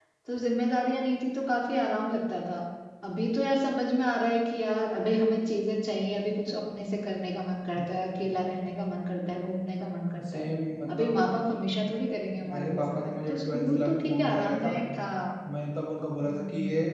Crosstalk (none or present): present